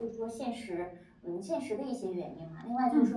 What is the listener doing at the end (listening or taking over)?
listening